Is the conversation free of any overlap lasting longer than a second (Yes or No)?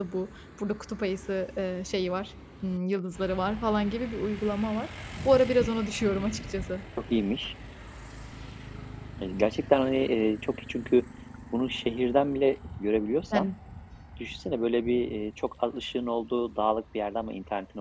Yes